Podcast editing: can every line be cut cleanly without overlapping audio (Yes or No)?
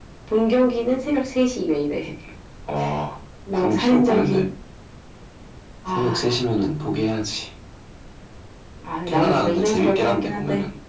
No